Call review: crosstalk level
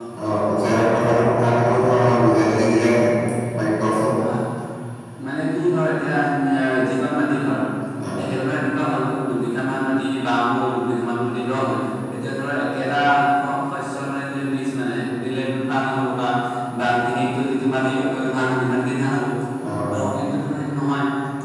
none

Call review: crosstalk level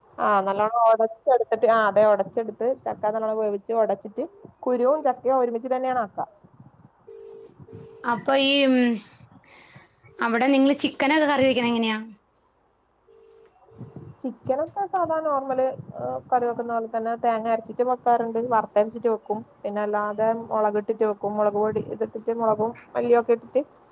none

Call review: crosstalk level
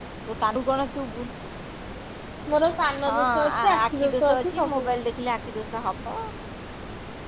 present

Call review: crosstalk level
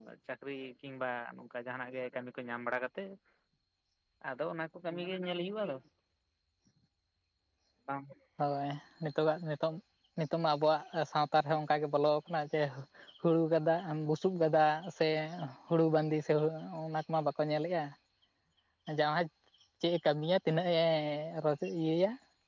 none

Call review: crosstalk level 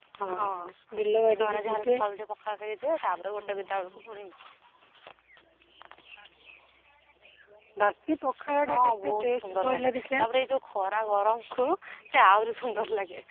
present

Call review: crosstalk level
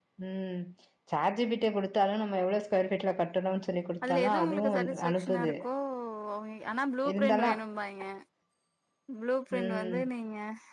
present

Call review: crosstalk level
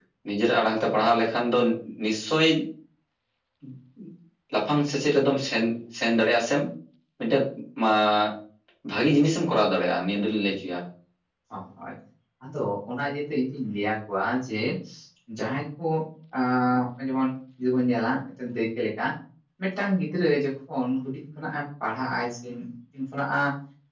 none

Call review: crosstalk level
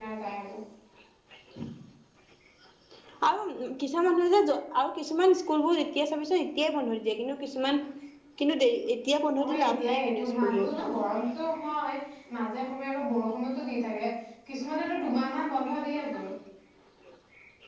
present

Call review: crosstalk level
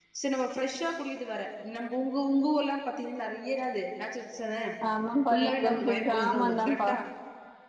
present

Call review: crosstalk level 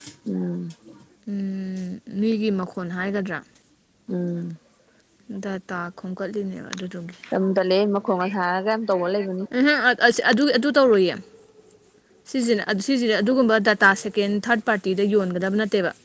none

